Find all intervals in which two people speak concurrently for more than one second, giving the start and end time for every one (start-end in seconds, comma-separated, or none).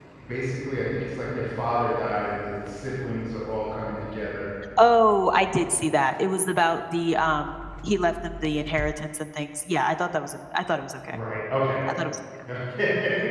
none